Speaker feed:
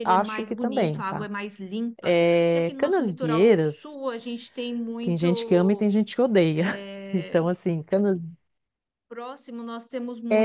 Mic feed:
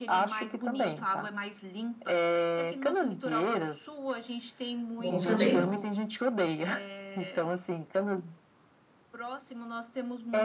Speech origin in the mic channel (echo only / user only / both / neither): both